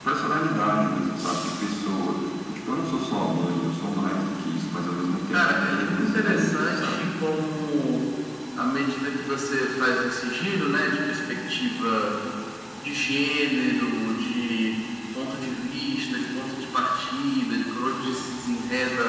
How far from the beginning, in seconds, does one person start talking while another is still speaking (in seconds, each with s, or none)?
5.3 s